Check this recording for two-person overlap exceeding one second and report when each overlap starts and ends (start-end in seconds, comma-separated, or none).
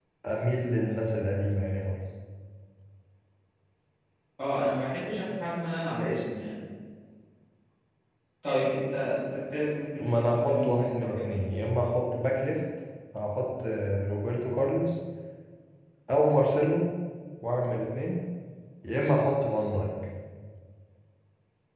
10.0-11.2